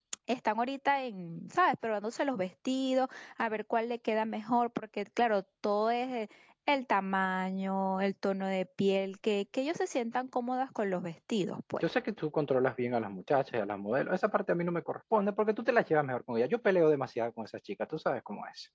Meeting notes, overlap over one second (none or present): none